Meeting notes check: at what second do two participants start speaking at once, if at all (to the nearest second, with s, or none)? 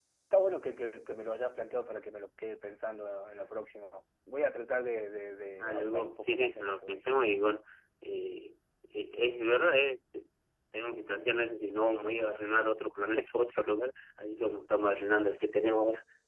6 s